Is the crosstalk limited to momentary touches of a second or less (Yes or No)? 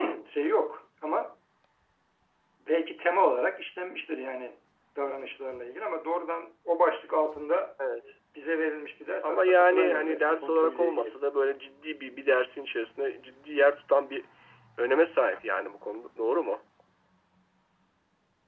No